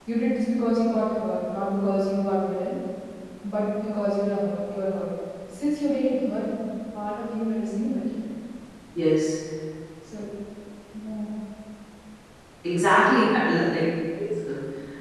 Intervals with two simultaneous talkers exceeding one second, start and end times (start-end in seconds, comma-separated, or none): none